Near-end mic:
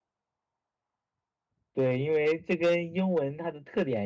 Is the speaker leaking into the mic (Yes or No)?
No